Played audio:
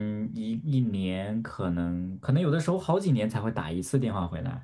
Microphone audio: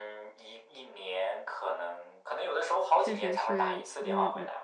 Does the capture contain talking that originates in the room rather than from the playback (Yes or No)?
Yes